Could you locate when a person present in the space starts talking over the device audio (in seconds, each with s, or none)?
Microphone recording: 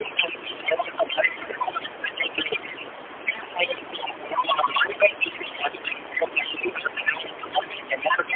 none